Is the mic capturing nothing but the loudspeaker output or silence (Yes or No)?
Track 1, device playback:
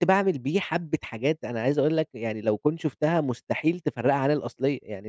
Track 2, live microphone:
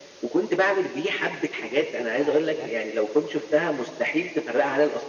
No